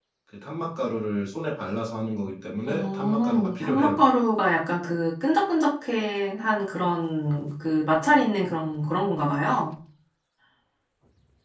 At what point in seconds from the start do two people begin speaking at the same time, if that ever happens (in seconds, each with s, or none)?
2.6 s